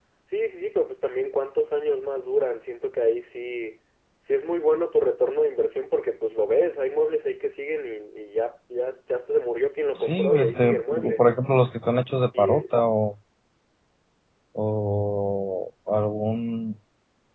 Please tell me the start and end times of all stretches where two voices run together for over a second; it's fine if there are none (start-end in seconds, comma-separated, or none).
10.0-11.2